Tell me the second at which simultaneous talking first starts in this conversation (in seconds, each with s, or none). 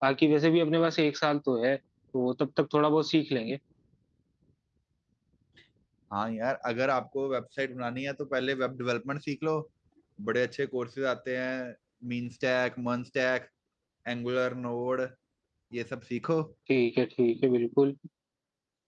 none